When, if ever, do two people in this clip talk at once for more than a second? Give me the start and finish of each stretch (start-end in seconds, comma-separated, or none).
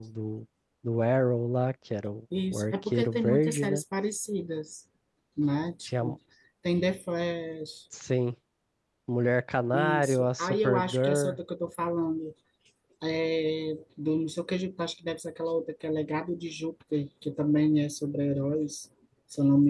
2.5-3.8, 9.7-11.4